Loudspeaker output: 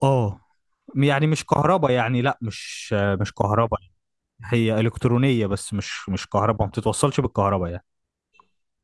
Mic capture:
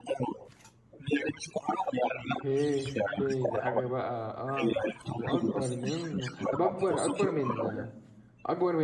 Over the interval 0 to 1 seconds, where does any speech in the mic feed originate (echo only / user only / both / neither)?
echo only